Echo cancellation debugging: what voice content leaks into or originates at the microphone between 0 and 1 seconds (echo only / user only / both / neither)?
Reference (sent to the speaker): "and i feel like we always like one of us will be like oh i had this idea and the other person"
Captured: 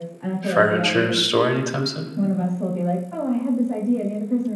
both